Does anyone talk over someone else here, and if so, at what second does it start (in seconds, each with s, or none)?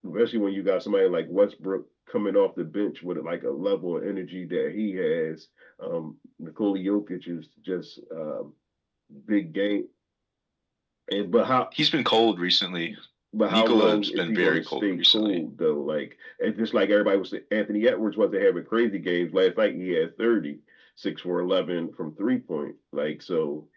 13.5 s